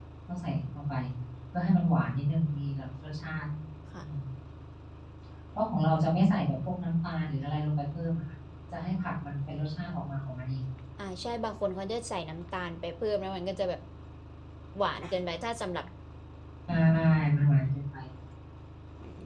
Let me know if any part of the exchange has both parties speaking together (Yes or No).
No